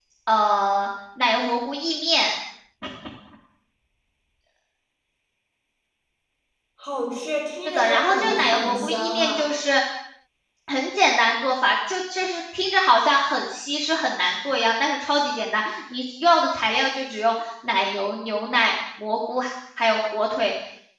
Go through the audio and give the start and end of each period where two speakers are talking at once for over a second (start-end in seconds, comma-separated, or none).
7.6-9.5